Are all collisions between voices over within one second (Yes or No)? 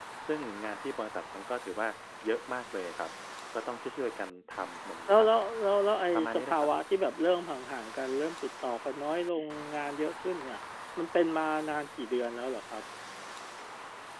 Yes